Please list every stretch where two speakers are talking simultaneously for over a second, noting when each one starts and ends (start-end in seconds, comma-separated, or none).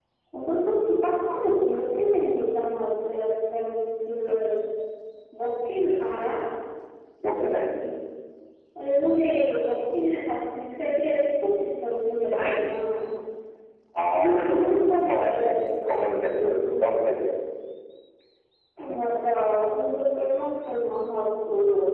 14.2-15.6